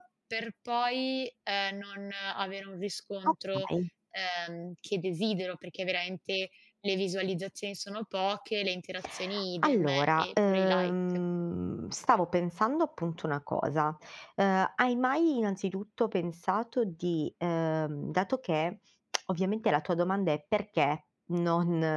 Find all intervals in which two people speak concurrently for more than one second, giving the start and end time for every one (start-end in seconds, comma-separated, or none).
9.6-10.9